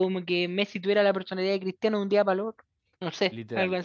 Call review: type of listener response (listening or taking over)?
taking over